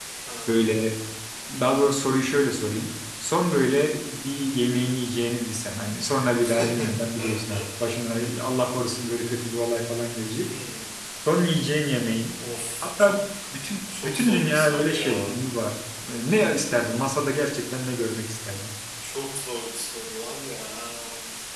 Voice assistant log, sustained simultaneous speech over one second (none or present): present